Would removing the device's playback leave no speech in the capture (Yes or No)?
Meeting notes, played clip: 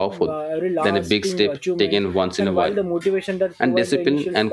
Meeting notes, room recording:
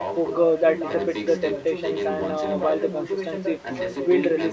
No